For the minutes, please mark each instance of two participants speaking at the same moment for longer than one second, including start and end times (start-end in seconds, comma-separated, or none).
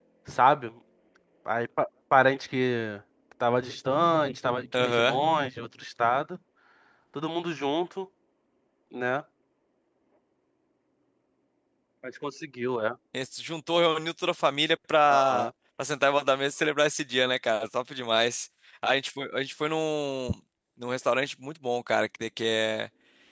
none